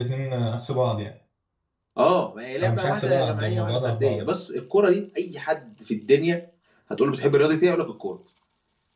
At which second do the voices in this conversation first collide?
2.6 s

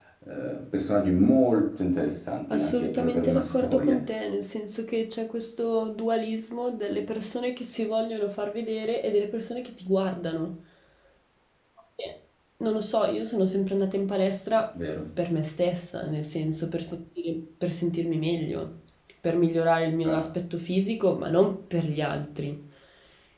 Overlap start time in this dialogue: 2.5 s

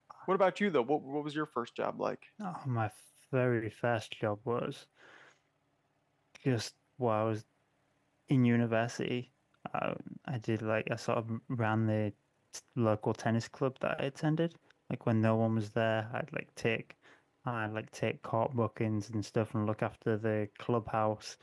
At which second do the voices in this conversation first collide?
none

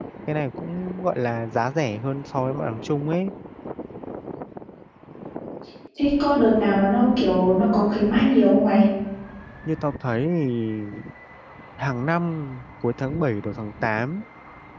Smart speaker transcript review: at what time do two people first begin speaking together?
none

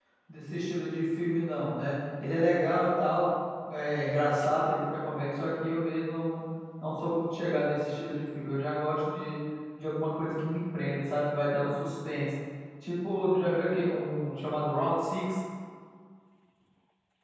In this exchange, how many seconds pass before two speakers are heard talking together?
none

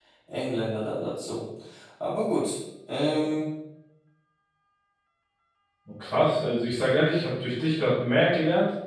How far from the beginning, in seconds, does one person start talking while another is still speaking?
none

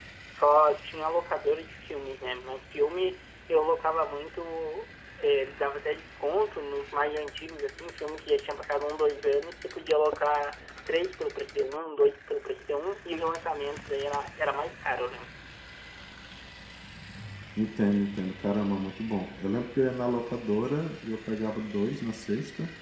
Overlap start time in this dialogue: none

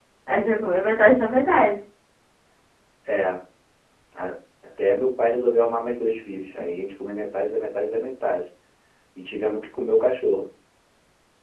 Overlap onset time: none

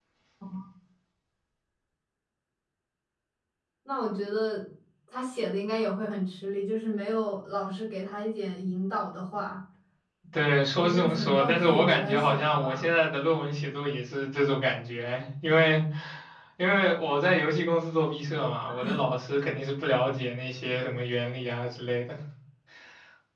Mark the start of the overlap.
10.8 s

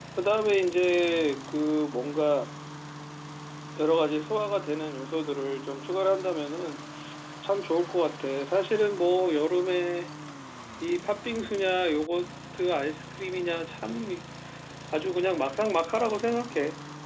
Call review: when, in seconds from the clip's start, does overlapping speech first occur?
none

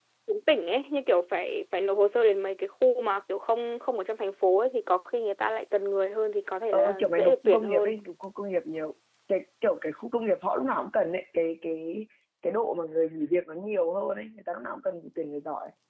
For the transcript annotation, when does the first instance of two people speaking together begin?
6.7 s

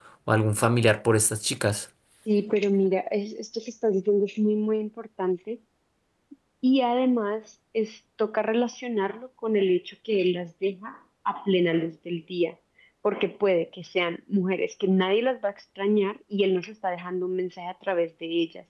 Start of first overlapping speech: none

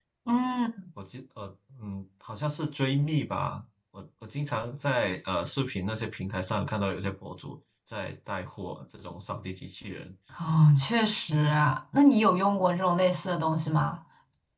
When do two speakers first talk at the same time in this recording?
none

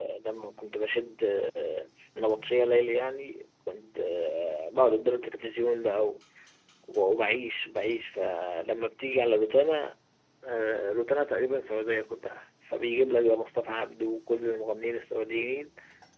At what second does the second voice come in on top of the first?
none

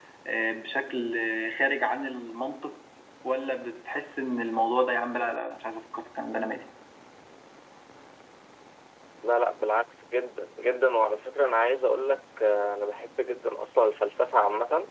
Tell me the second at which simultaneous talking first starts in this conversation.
none

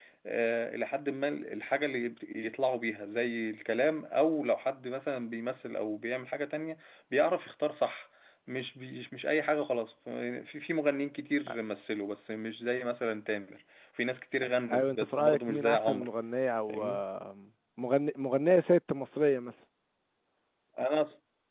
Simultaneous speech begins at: 14.7 s

